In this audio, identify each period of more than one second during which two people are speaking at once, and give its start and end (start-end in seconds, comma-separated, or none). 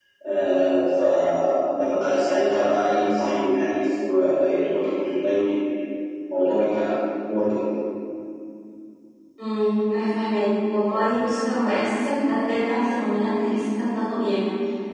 none